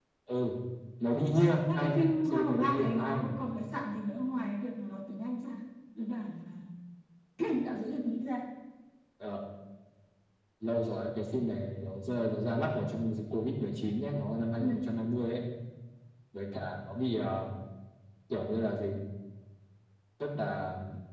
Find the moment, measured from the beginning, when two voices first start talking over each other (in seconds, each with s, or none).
1.8 s